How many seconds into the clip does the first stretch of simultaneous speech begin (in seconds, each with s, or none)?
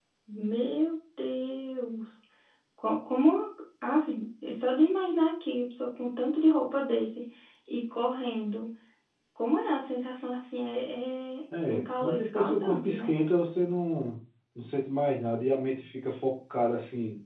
11.5 s